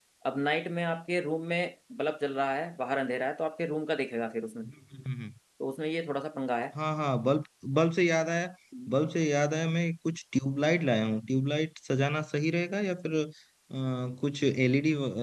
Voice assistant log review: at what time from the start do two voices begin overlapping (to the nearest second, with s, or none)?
none